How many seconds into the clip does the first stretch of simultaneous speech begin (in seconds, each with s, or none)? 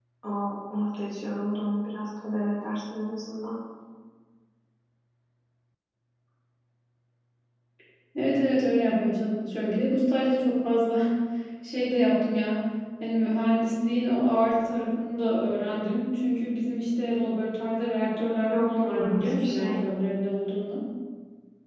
18.5 s